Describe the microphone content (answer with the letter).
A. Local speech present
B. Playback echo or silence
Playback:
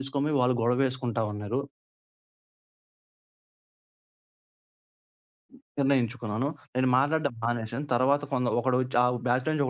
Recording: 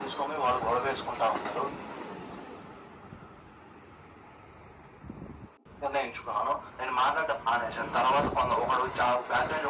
B